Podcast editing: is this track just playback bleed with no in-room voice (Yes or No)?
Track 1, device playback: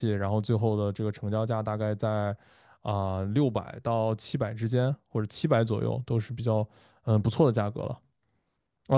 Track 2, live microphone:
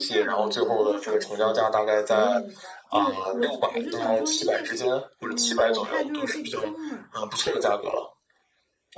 No